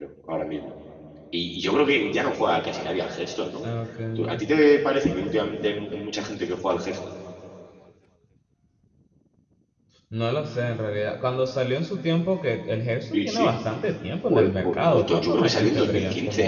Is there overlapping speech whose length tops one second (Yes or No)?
Yes